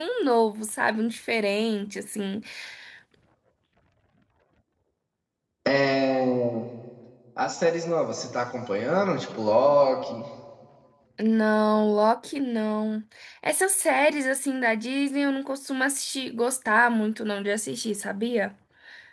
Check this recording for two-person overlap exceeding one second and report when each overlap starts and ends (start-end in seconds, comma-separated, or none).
none